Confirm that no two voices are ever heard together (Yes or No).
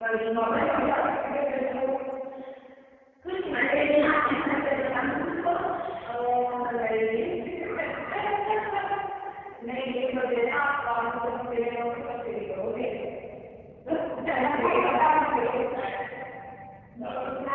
No